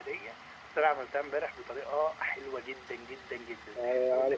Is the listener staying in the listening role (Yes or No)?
No